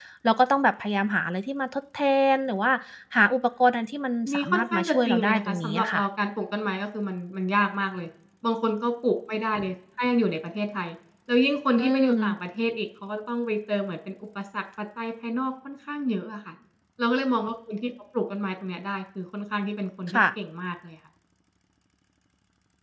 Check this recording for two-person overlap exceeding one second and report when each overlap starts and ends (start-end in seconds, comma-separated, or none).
4.3-6.0